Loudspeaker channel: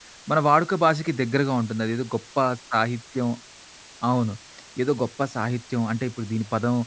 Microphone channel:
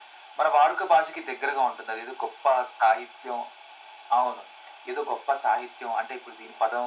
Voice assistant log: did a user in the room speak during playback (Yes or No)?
No